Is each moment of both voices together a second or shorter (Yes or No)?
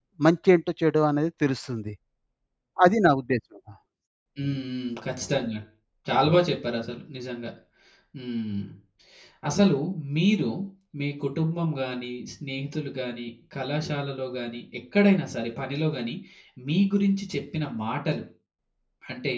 Yes